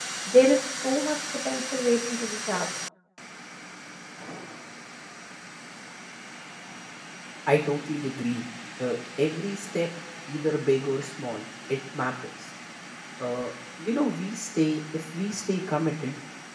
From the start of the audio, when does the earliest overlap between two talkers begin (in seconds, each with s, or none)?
none